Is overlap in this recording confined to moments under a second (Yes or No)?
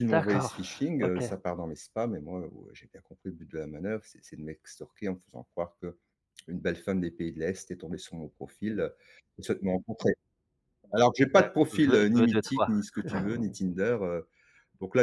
No